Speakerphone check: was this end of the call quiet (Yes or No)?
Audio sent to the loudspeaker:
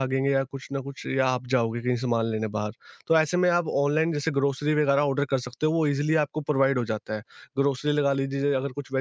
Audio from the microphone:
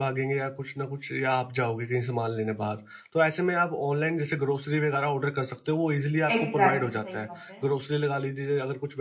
No